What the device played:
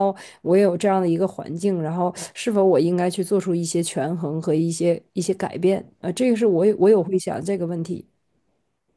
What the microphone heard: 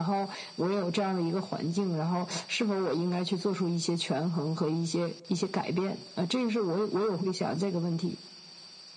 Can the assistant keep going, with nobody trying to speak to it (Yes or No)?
Yes